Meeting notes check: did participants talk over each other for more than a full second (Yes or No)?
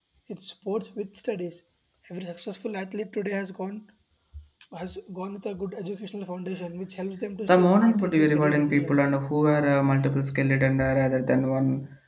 Yes